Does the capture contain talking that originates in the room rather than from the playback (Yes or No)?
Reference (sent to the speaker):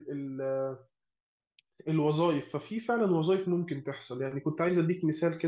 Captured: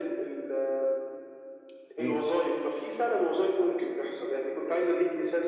Yes